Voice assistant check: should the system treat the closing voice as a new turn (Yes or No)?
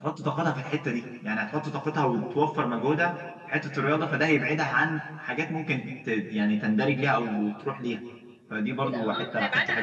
Yes